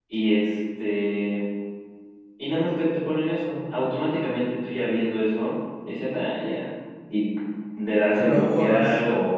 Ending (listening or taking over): listening